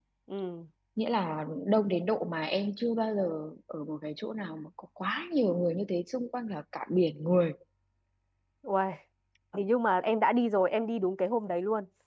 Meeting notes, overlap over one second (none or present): none